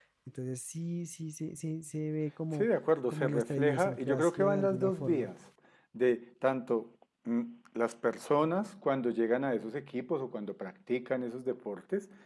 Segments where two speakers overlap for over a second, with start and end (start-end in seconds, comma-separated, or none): 3.1-5.3